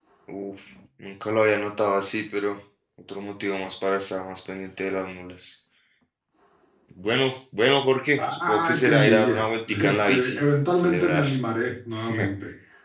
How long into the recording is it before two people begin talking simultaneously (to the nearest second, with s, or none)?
8 s